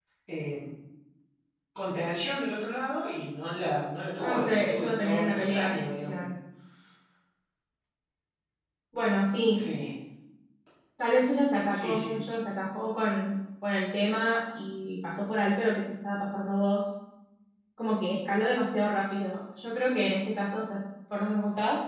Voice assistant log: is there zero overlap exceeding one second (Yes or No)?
No